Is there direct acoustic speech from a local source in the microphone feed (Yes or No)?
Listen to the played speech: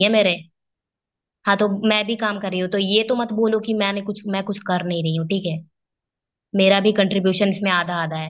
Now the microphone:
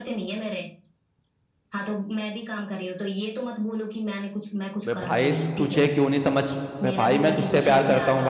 Yes